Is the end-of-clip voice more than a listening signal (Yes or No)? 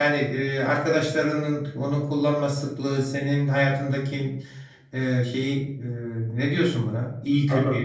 Yes